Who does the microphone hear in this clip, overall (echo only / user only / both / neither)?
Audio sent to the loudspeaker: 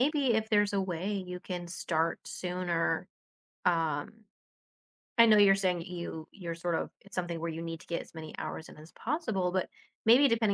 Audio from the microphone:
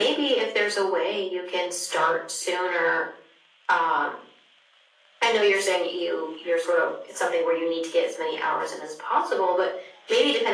echo only